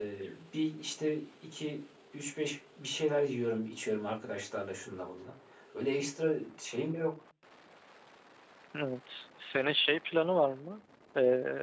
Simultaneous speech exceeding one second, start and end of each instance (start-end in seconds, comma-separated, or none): none